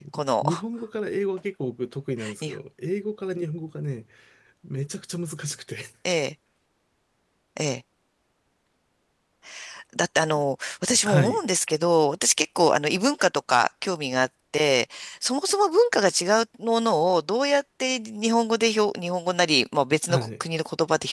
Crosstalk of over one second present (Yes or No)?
No